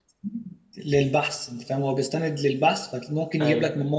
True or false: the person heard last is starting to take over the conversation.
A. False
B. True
A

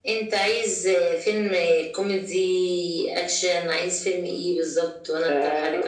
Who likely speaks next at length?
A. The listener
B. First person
A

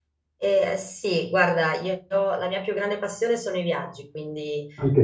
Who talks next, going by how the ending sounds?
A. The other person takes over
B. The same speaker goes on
B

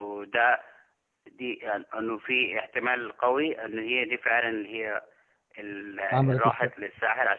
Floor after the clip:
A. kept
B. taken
A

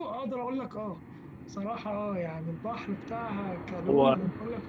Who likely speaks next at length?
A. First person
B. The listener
A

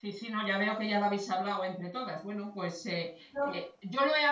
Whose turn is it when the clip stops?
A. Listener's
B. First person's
B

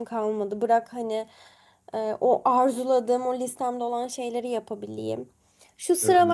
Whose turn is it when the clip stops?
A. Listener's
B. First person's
B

